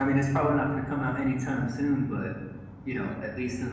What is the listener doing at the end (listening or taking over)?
listening